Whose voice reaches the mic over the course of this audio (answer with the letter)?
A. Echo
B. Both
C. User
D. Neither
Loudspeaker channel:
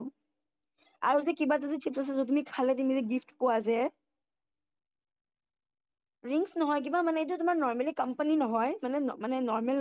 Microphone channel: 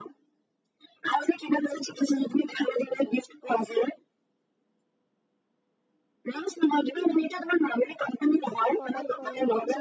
B